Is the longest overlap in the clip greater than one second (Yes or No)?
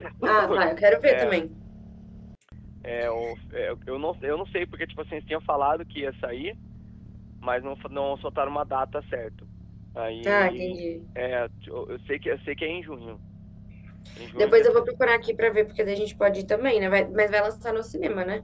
No